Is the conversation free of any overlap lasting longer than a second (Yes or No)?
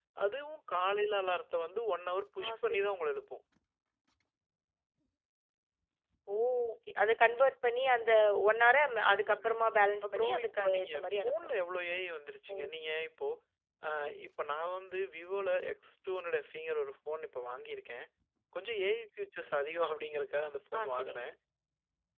No